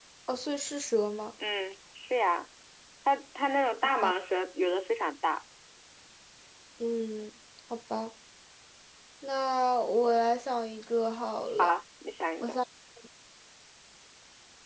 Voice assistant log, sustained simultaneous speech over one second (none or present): none